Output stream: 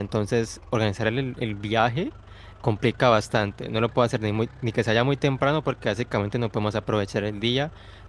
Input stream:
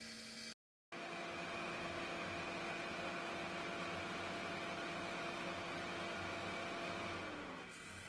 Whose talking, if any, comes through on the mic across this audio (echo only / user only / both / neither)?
neither